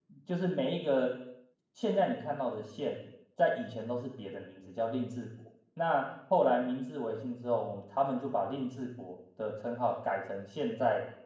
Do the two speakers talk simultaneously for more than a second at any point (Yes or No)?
No